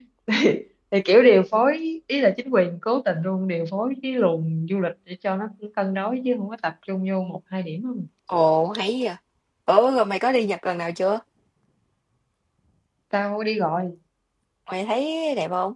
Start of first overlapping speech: none

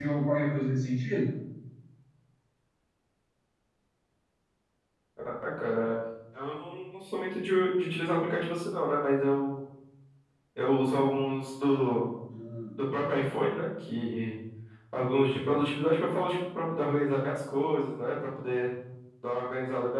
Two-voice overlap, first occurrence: none

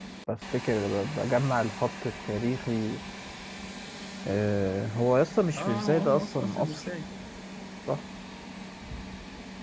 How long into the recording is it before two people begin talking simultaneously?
6 s

